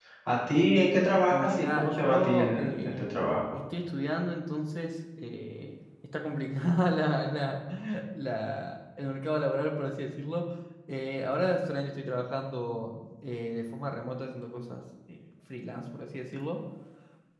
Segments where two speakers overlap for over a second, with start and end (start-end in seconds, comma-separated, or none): 1.3-3.1